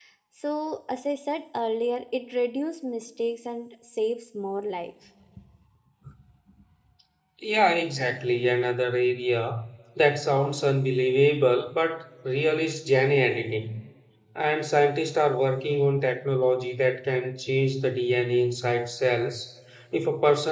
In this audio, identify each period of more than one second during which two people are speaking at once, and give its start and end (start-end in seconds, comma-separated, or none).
none